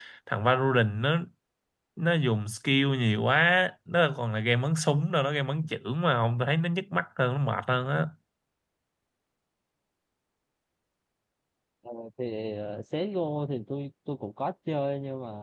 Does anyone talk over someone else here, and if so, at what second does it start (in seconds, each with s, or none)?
none